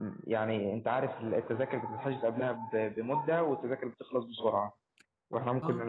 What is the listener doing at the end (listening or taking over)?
listening